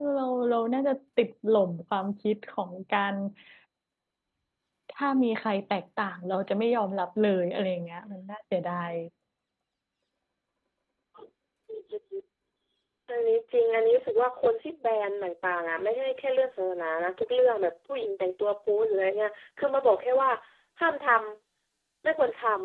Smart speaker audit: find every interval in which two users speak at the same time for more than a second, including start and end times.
none

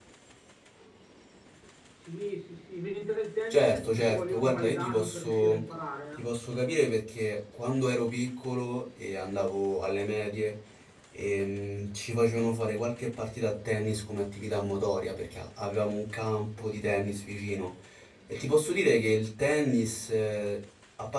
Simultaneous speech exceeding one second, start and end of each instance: 3.5-5.6

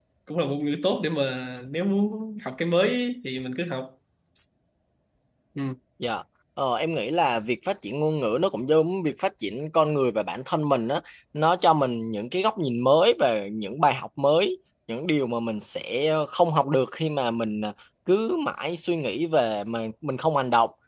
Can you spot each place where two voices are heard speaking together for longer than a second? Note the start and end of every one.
none

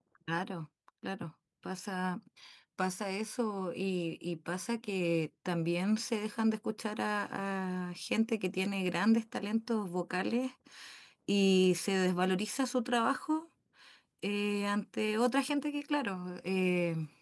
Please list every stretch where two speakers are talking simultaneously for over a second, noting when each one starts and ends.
none

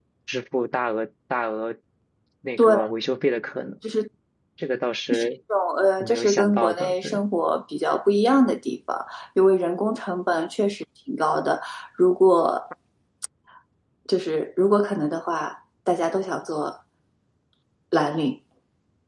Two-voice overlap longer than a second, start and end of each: 6.0-7.2

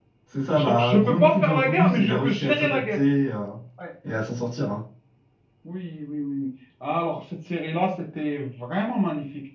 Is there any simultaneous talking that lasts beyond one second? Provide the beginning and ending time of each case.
0.5-3.0

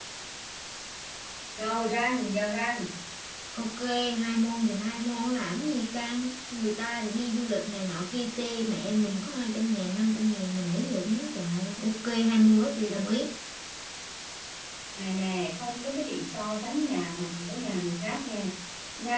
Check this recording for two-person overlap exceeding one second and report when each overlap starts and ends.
none

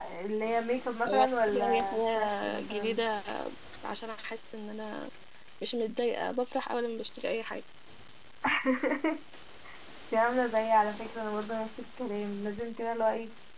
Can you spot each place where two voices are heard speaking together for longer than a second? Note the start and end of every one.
1.1-3.0

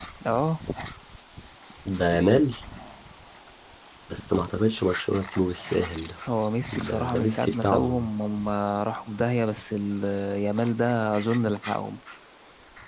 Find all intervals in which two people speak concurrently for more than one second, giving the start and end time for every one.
6.7-8.1

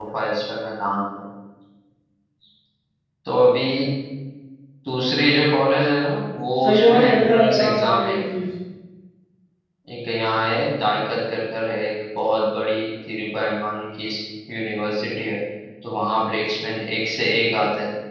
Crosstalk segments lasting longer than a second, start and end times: 6.6-8.2

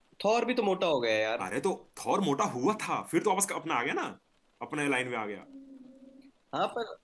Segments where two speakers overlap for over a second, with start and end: none

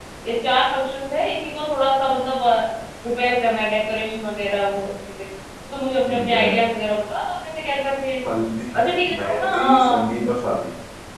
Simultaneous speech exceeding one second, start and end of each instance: 8.8-10.0

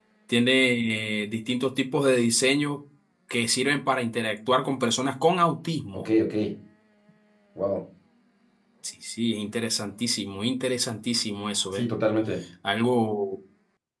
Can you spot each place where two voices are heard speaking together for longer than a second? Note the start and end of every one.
none

